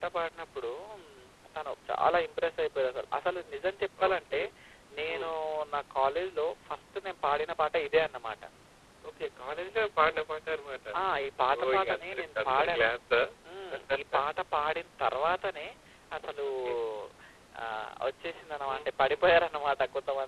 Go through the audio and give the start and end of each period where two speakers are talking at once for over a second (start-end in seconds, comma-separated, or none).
11.6-12.9